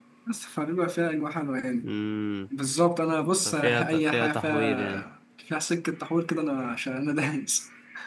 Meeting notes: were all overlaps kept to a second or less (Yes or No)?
No